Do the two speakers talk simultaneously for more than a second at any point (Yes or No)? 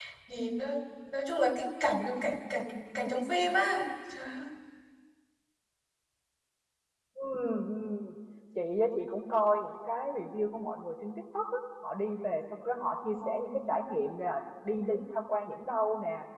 No